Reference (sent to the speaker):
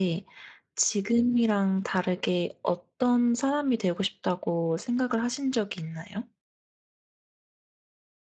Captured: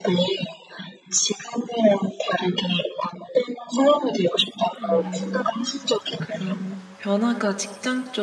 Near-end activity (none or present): present